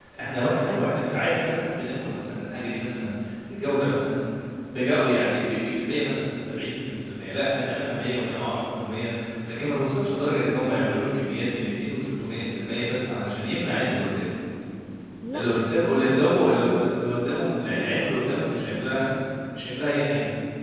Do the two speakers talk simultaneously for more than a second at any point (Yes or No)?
Yes